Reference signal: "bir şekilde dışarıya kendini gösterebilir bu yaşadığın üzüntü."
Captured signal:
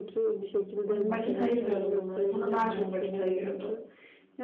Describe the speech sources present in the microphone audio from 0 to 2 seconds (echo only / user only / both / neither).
both